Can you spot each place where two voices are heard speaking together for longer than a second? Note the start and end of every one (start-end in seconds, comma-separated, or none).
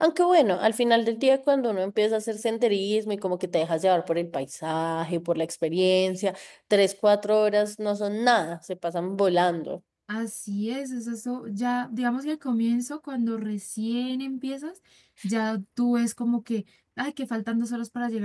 none